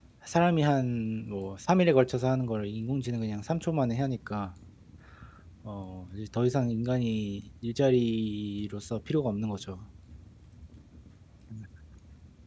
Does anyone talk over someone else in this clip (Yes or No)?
No